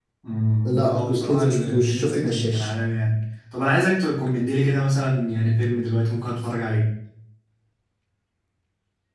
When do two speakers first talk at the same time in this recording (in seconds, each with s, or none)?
0.6 s